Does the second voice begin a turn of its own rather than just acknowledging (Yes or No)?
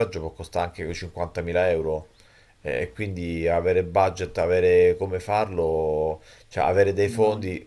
No